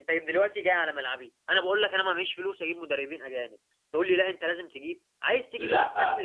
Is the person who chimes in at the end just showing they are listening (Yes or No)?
No